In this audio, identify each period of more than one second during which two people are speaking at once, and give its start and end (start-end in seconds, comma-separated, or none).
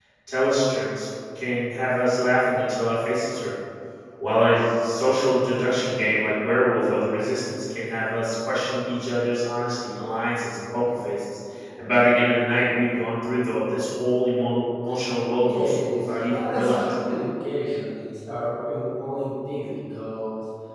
15.4-16.9